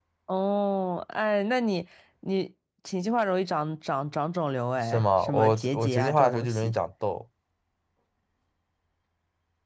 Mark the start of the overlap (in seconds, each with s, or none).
4.8 s